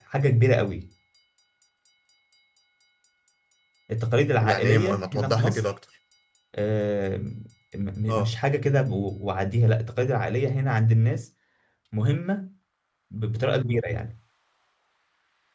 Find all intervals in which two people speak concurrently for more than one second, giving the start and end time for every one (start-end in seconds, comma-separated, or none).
4.4-5.7